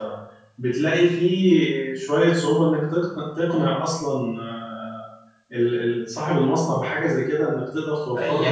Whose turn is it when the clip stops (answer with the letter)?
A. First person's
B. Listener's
B